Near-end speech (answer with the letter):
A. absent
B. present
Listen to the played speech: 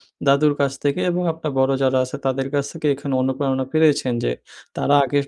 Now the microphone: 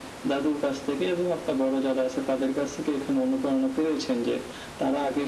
A